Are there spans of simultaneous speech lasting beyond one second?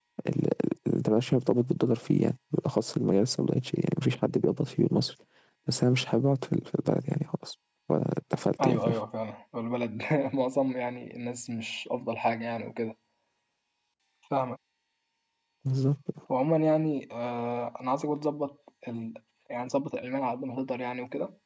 No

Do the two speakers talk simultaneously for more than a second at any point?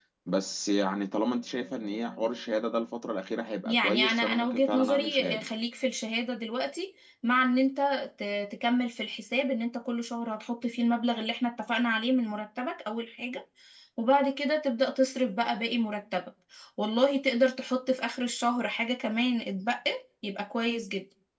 Yes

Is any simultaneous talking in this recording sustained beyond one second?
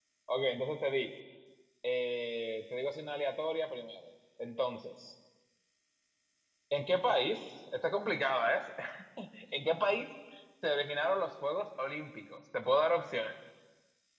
No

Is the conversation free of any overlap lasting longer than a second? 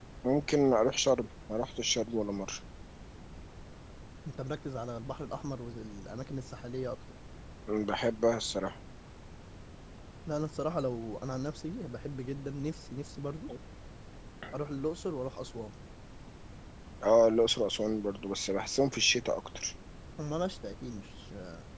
Yes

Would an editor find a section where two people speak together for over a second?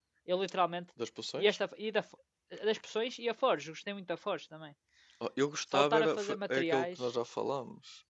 Yes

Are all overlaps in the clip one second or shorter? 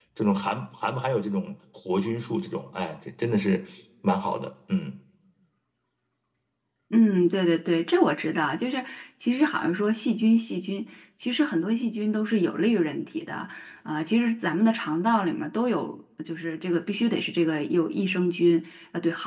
Yes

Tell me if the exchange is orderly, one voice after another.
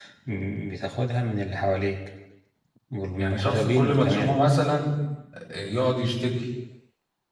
No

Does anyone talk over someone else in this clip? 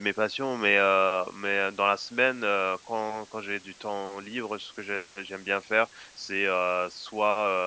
No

